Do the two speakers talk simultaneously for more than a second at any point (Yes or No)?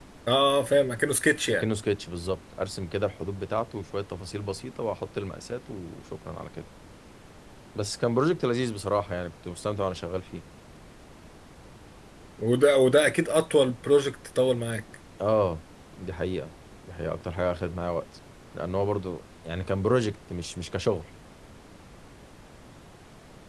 No